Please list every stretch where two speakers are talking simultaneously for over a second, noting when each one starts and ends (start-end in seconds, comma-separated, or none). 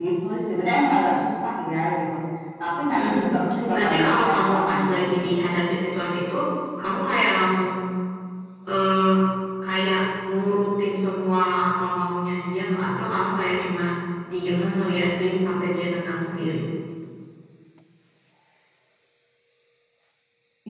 3.7-5.4